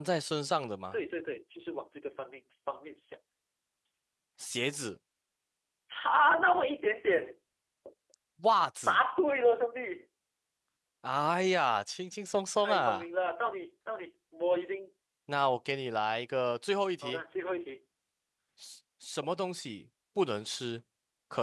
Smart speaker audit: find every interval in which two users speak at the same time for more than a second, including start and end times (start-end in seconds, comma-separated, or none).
none